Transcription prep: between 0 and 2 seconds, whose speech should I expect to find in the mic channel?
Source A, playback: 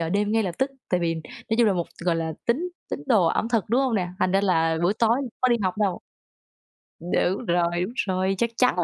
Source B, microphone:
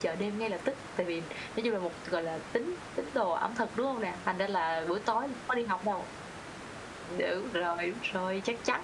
echo only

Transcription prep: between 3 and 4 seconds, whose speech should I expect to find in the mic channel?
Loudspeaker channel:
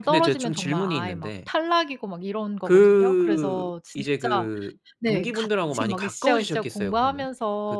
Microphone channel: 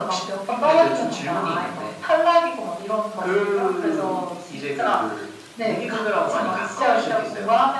echo only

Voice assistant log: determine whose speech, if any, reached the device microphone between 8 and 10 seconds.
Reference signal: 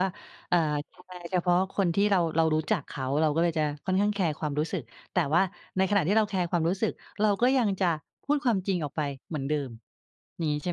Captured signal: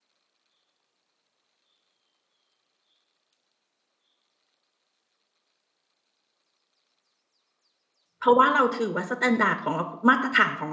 user only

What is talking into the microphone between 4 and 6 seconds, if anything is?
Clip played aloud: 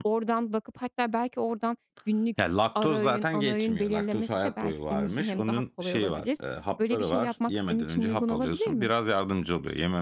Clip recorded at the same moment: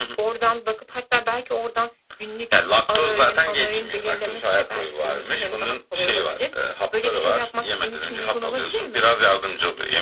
echo only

